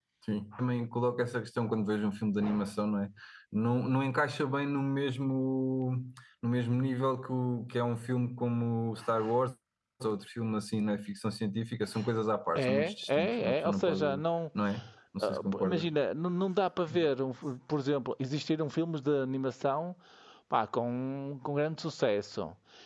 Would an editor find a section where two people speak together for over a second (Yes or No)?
Yes